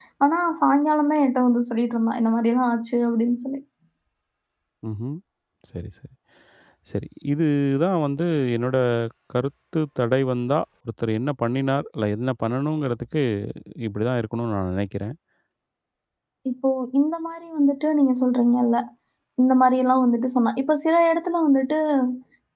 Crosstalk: none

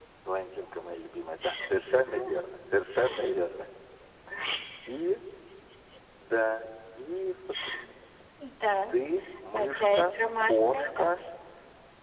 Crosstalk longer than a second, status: present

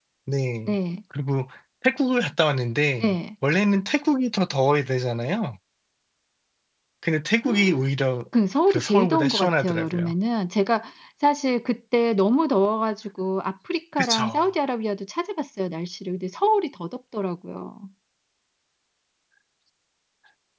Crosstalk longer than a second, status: present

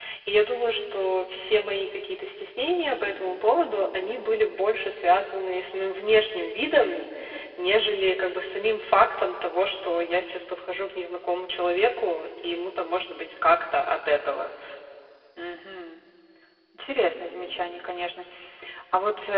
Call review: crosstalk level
none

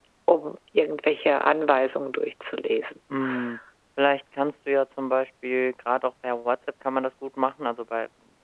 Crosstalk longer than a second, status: none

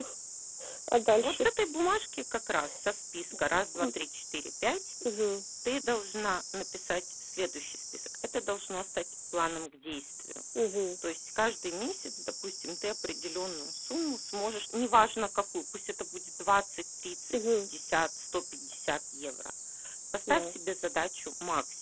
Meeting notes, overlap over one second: none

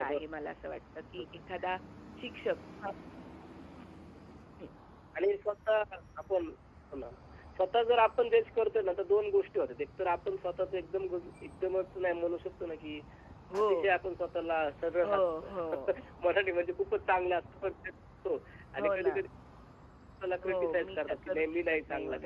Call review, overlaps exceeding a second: present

